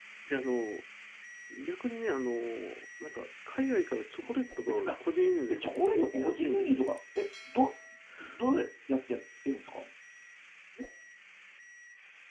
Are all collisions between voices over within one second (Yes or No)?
No